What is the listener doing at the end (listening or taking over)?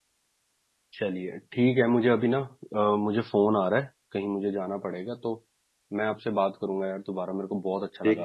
taking over